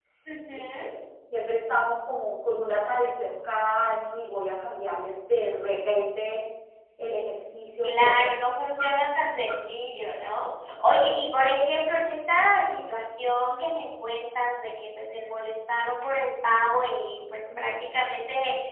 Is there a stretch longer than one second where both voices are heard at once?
No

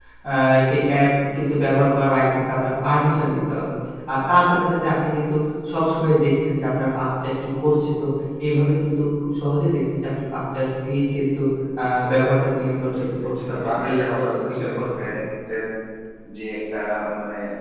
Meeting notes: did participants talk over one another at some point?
Yes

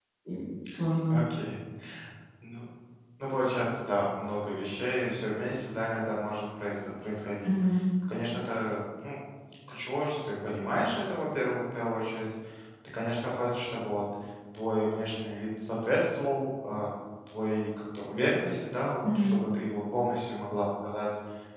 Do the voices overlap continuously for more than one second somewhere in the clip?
No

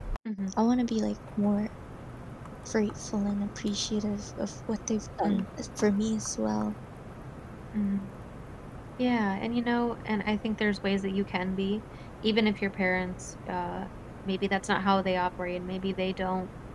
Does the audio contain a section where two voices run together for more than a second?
No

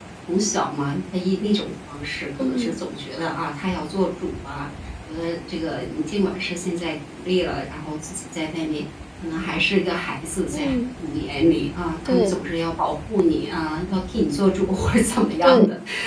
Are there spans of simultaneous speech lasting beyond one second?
No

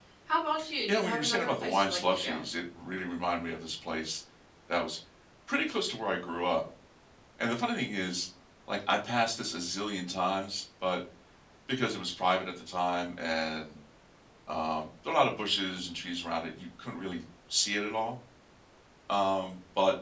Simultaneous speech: Yes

